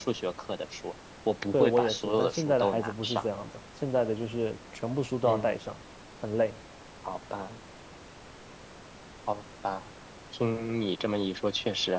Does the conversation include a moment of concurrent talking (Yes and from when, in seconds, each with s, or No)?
Yes, from 1.5 s